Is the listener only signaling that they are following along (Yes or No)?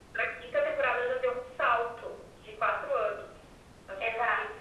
No